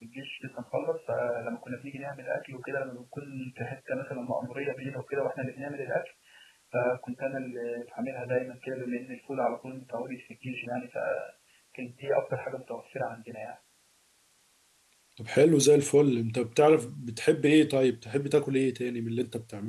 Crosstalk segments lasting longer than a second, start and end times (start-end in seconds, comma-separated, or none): none